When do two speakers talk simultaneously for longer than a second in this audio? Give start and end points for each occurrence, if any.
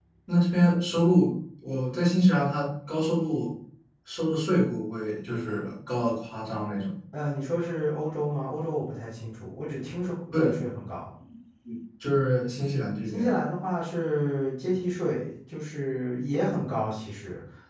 none

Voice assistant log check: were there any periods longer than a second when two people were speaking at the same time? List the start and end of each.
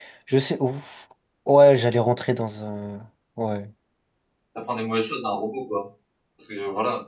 none

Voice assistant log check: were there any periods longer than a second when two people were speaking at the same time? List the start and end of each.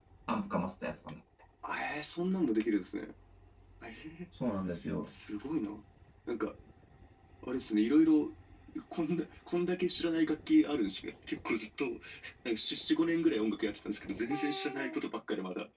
none

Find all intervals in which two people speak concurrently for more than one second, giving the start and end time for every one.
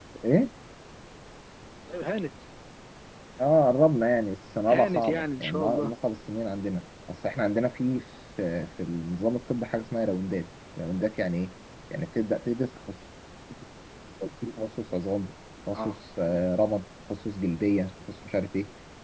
4.7-5.9

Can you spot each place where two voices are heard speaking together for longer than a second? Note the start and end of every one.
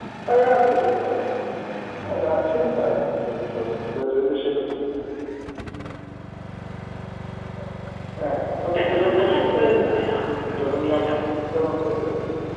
8.8-11.2

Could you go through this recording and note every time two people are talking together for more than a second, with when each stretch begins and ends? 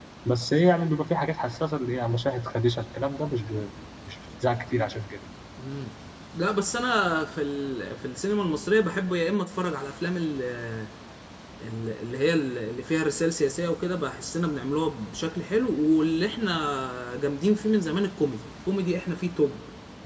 none

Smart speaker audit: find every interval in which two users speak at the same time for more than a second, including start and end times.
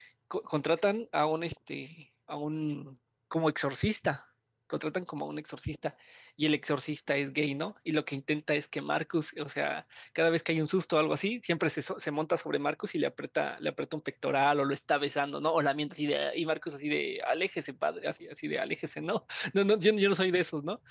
none

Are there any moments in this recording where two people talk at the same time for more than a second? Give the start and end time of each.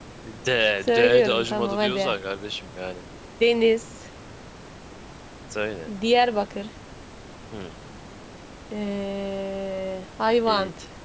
0.9-2.1

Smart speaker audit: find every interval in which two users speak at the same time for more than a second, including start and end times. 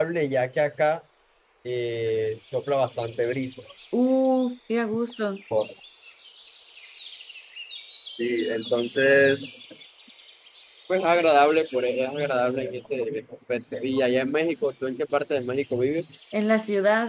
none

